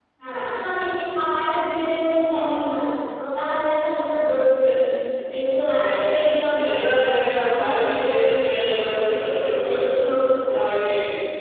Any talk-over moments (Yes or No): Yes